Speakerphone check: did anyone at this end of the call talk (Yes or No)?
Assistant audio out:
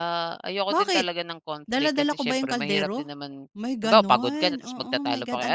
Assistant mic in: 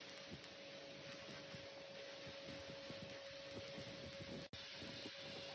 No